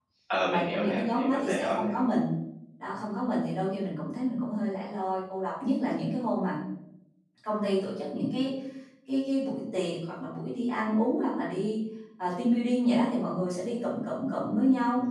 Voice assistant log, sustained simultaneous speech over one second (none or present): present